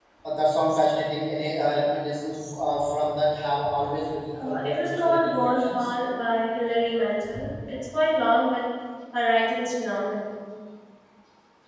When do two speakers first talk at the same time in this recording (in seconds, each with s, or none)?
4.3 s